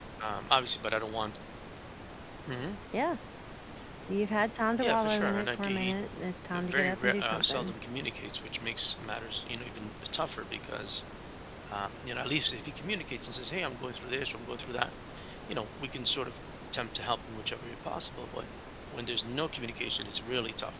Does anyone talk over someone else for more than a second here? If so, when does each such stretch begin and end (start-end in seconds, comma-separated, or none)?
4.8-6.0, 6.5-7.7